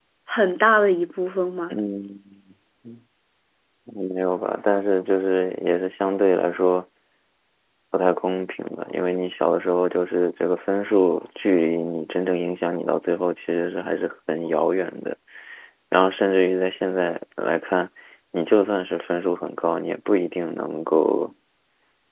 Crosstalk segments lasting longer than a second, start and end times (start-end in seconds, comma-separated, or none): none